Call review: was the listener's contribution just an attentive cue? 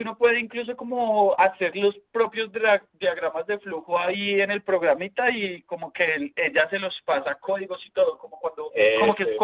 Yes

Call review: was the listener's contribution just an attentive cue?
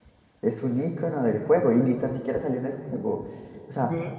Yes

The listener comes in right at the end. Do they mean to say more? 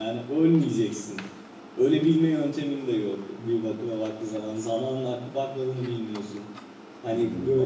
No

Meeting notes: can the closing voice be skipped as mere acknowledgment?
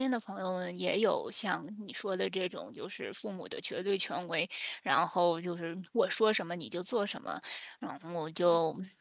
Yes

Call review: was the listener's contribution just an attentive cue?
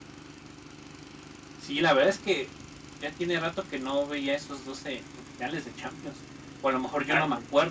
Yes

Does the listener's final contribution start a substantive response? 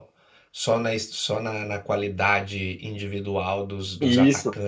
Yes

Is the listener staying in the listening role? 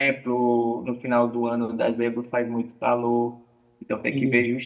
Yes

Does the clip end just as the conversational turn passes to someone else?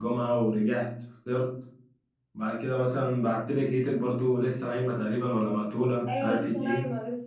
Yes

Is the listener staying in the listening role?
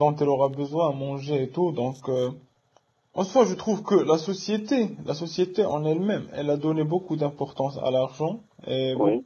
Yes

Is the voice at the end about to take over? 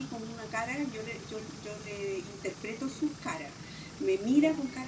No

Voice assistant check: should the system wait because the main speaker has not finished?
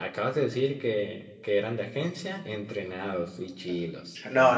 No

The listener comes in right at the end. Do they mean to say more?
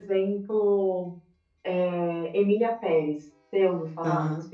Yes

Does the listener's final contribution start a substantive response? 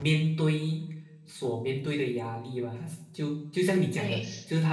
No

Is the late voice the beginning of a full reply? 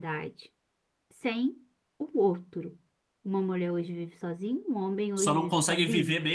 Yes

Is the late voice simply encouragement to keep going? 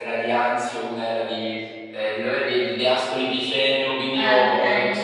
Yes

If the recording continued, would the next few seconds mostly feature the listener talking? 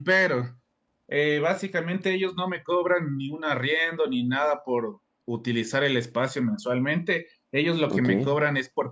No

